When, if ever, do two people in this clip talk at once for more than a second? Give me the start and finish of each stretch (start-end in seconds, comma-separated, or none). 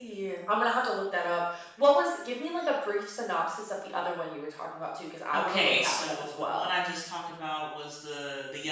5.3-6.7